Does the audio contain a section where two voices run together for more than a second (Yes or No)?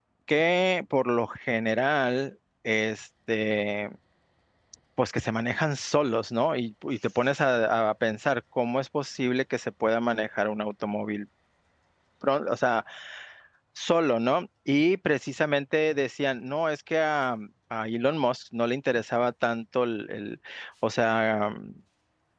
No